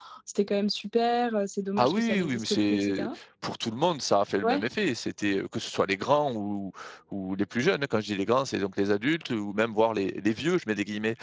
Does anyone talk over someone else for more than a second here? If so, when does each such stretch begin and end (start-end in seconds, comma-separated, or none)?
1.8-3.1